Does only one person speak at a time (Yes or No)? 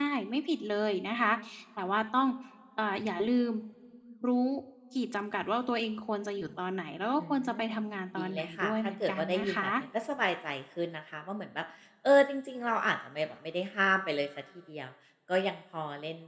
No